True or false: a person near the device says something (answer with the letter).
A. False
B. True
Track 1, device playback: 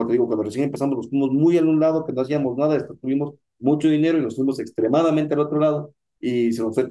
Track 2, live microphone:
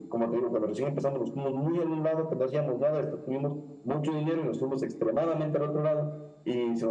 A